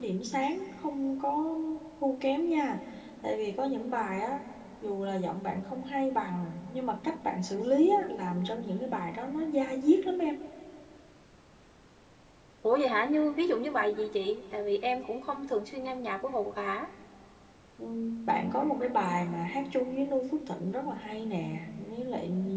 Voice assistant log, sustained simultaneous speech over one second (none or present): none